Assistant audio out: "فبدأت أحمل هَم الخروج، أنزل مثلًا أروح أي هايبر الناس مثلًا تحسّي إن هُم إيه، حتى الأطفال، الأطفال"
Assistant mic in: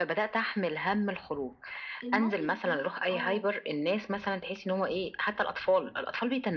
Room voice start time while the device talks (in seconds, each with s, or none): 2.0 s